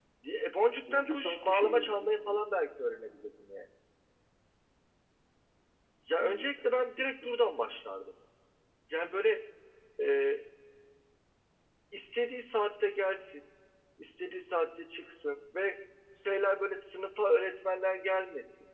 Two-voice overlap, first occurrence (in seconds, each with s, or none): 0.9 s